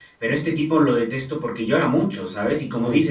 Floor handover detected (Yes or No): No